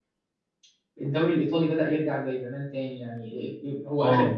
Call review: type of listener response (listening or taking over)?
listening